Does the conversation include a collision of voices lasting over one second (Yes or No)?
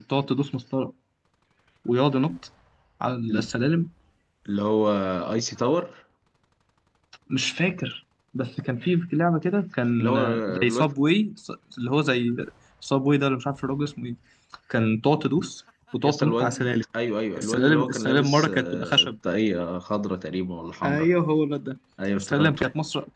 Yes